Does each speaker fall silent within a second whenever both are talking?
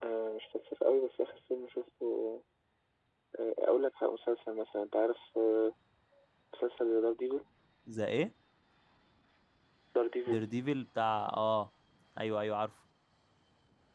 Yes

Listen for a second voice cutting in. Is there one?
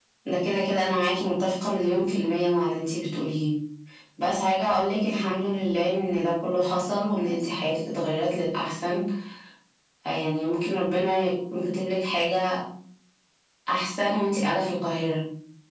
No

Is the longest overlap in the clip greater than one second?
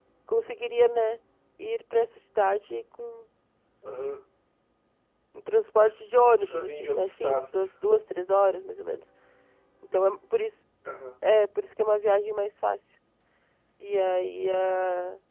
Yes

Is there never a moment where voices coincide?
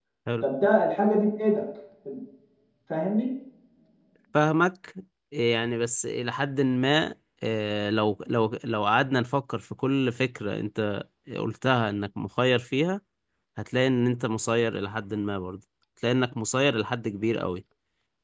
Yes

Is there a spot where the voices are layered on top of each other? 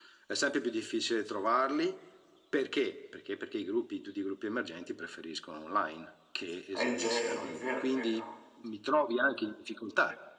Yes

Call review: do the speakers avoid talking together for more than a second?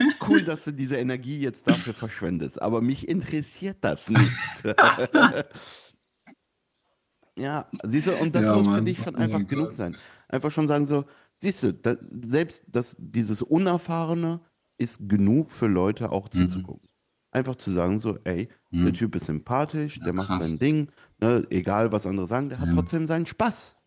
No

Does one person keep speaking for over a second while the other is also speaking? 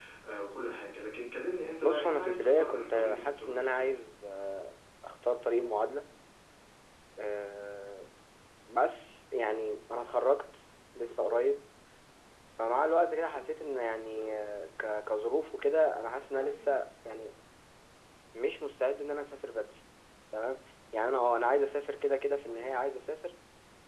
Yes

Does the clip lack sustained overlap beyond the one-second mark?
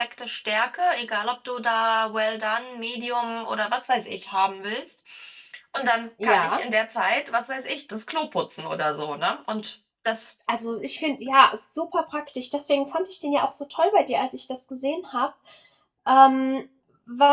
Yes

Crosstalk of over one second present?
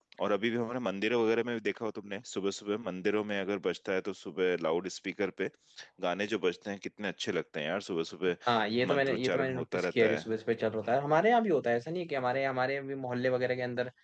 Yes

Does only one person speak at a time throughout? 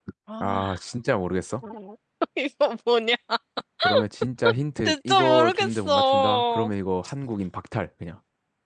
No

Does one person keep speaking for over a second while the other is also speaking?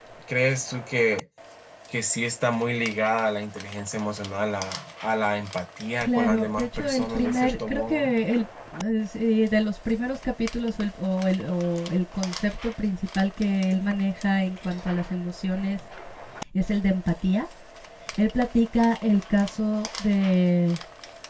Yes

